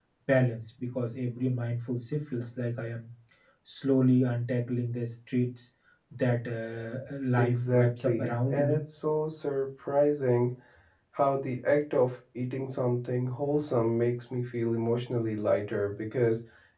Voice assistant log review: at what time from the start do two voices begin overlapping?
7.4 s

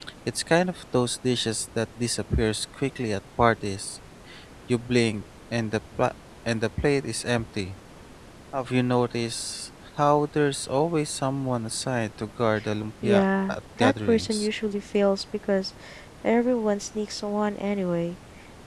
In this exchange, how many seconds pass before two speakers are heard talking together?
13.0 s

